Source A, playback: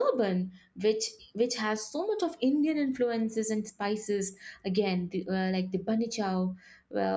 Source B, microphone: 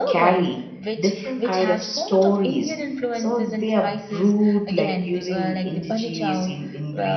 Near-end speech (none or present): present